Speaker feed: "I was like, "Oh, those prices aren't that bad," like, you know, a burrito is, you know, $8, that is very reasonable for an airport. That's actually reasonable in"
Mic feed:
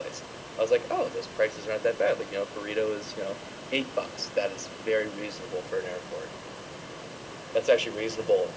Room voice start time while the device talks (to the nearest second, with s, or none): none